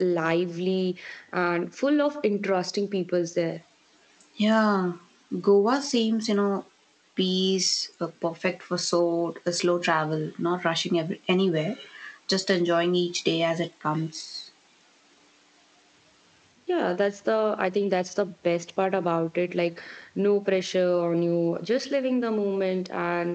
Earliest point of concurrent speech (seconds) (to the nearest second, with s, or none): none